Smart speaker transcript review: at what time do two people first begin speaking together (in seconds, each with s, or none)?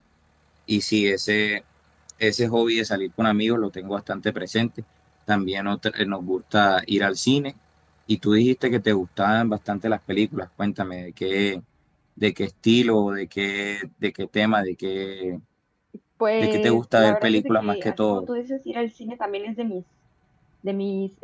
16.4 s